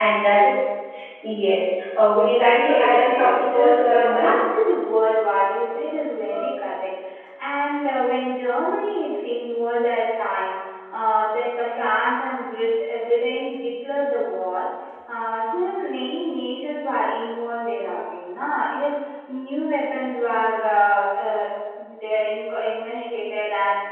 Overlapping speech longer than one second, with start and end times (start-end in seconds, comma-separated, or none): 2.5-4.3